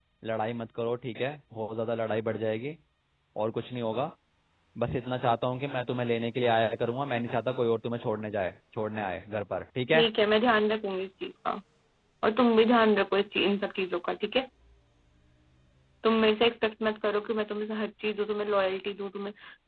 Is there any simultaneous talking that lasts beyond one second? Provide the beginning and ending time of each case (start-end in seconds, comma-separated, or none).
none